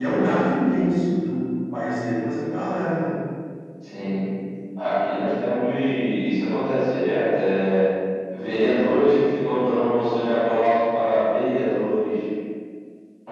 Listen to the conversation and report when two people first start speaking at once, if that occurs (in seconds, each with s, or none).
none